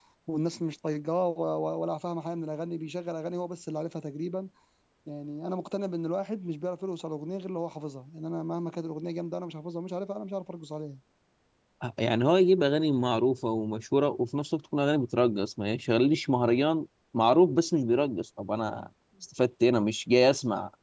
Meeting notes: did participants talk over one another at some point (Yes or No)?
No